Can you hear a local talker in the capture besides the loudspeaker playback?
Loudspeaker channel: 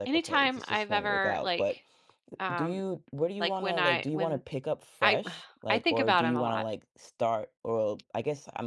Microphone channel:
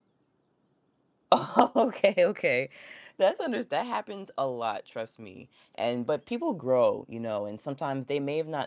Yes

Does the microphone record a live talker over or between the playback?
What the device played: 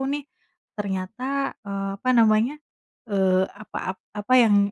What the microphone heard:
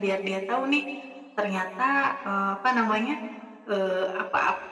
No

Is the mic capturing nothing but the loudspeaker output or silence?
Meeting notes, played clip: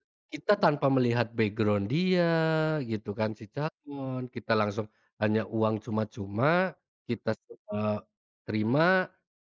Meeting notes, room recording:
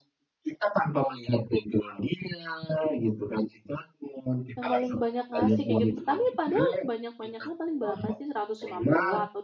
No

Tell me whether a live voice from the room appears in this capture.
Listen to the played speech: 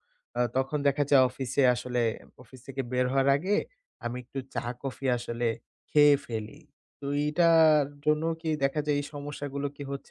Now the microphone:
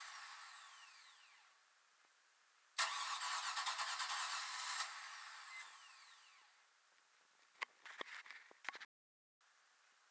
No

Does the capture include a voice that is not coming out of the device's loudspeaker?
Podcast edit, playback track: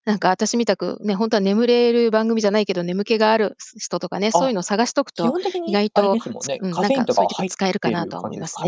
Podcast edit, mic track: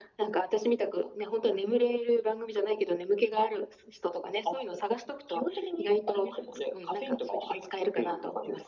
No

